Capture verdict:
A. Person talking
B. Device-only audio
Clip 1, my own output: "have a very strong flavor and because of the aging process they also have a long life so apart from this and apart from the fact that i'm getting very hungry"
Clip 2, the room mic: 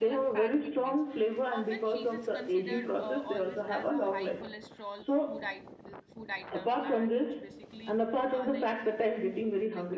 A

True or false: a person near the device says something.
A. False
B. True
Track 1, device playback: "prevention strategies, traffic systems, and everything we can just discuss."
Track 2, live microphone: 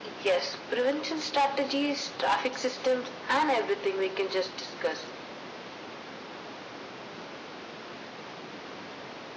A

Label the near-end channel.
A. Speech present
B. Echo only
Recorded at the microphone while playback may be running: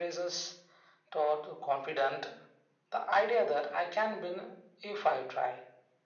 B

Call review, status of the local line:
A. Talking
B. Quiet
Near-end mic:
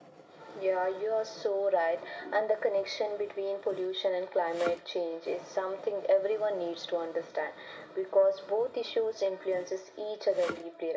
B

